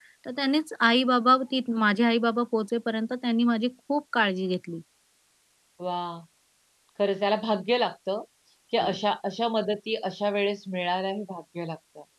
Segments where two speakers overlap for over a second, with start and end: none

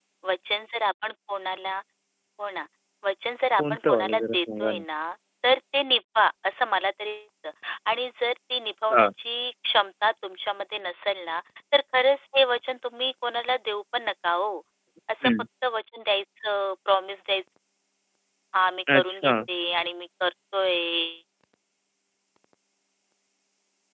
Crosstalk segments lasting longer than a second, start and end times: 3.6-4.8

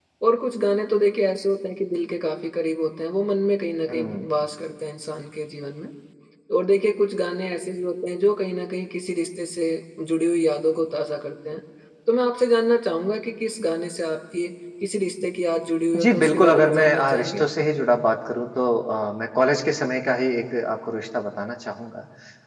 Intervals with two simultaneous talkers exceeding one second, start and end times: 16.0-17.4

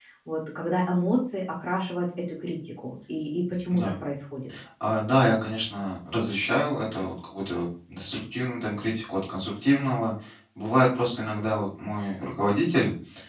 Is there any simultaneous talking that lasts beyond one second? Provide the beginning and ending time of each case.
none

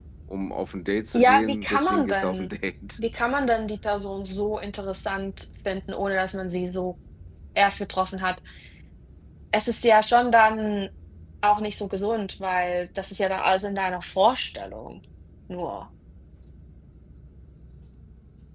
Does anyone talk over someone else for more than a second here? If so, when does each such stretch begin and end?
1.1-2.5

